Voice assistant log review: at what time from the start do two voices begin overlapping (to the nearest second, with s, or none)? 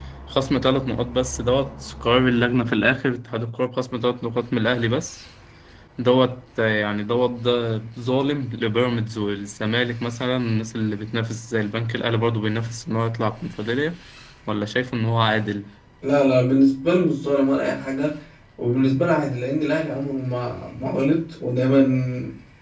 none